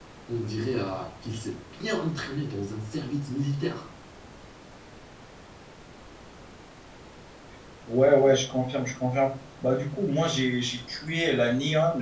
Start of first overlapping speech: none

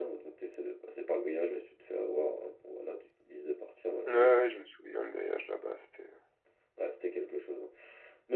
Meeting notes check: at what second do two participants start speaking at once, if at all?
none

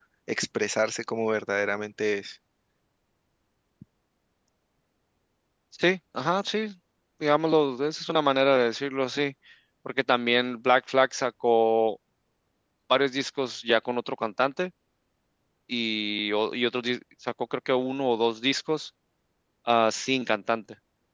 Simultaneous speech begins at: none

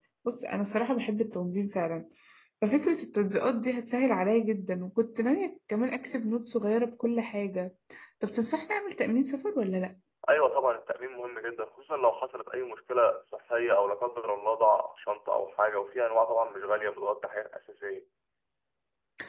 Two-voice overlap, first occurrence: none

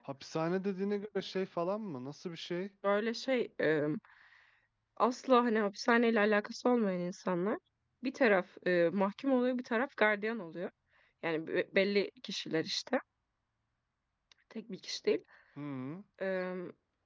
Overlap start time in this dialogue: none

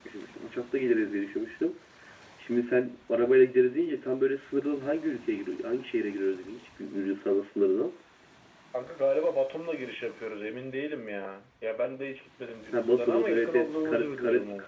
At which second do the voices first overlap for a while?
12.7 s

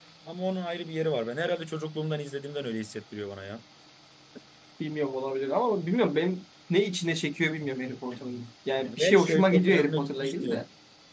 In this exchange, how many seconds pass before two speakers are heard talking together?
8.8 s

